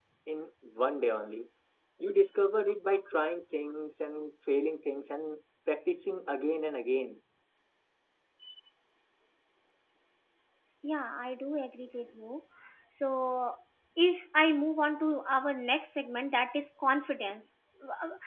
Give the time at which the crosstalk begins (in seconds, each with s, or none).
none